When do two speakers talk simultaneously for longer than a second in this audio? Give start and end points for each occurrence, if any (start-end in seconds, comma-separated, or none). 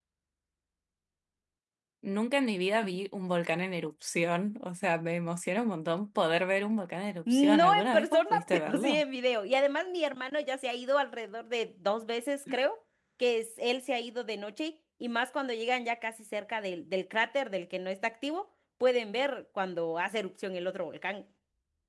7.3-9.0